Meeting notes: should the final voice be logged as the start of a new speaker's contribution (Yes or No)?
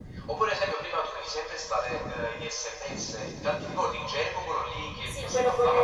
Yes